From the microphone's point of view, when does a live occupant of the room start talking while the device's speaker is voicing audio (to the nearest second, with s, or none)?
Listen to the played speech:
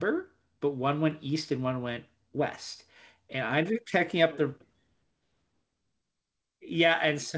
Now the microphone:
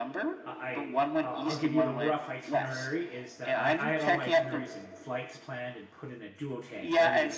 0 s